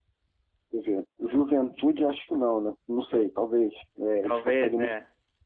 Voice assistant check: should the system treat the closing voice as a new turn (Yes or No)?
No